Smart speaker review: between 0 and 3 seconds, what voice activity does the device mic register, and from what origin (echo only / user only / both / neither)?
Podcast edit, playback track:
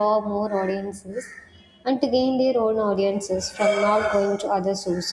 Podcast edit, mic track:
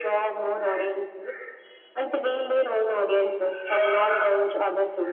echo only